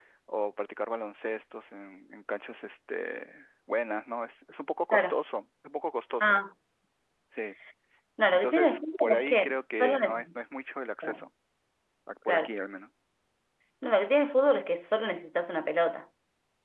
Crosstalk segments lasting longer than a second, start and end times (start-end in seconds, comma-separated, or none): 8.3-10.4